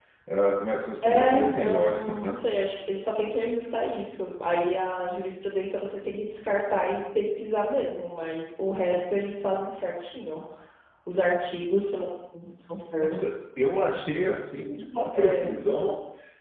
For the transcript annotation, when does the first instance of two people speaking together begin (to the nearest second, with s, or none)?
1 s